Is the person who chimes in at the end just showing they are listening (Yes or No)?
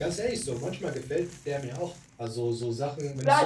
No